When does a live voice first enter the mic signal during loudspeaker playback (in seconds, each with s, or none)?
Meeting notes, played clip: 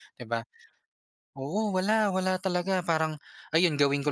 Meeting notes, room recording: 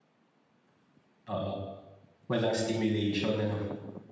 1.2 s